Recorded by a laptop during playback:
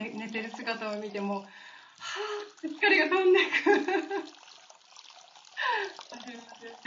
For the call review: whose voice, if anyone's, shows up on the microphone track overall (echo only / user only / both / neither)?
user only